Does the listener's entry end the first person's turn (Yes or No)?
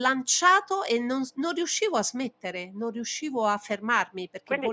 Yes